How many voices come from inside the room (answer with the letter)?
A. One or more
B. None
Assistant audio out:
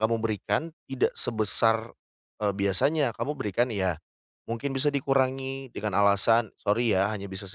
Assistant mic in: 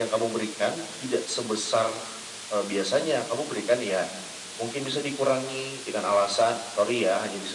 B